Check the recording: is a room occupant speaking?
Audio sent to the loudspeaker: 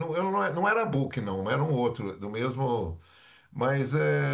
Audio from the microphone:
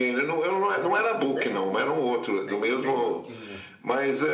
Yes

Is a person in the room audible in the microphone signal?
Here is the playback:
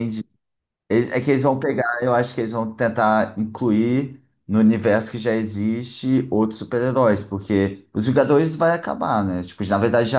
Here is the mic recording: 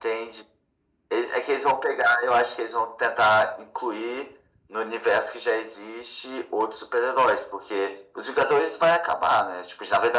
No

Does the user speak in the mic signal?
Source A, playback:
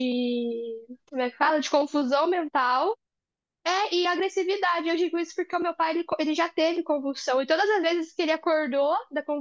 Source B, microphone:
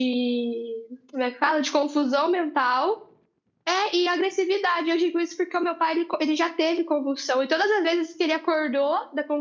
No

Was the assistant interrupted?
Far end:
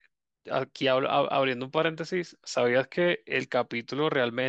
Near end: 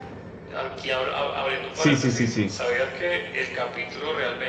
Yes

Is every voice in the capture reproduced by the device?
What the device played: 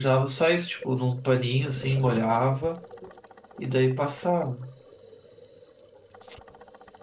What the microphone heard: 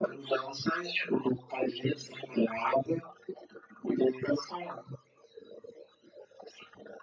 Yes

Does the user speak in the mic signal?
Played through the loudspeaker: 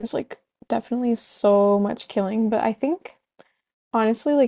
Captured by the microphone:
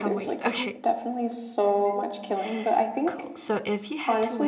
Yes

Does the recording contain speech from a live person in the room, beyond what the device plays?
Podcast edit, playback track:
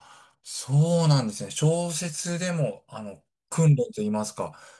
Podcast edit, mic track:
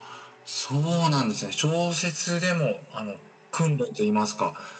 No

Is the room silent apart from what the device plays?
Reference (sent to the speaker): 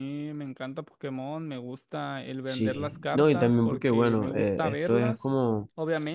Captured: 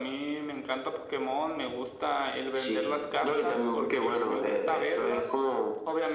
Yes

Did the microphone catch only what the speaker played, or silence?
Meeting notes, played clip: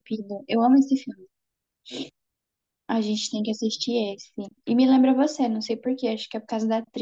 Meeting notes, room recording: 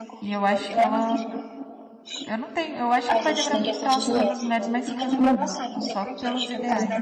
No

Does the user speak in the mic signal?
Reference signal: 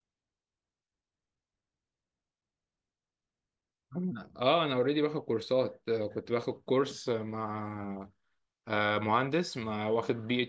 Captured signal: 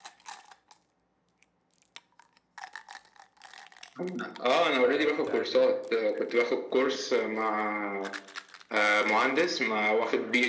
Yes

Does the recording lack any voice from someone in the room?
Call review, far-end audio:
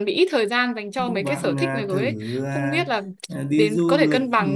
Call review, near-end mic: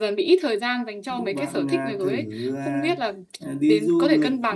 Yes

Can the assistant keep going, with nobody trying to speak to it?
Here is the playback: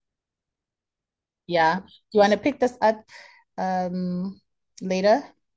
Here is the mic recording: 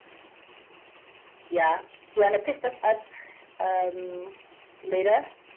Yes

